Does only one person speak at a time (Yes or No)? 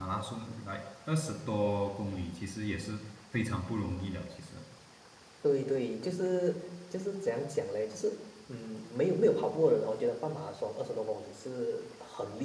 Yes